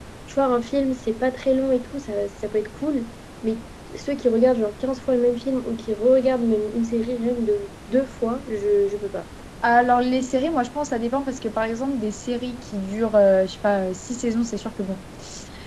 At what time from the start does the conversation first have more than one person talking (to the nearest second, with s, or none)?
none